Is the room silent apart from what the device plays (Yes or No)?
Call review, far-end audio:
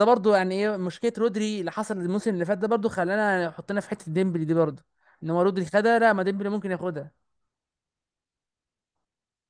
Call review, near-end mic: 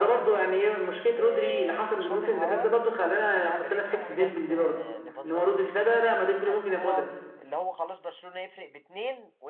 No